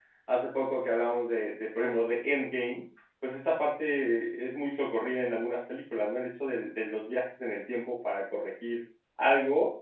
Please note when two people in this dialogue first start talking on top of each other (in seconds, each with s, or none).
none